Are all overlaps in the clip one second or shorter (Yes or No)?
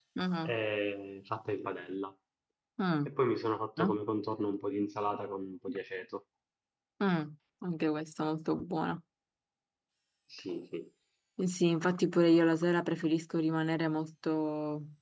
Yes